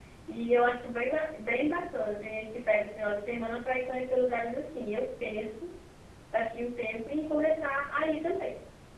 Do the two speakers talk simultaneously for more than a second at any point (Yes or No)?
No